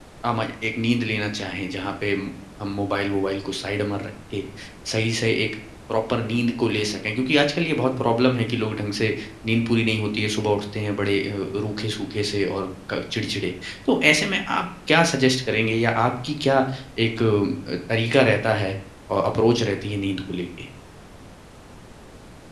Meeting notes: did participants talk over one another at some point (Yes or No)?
No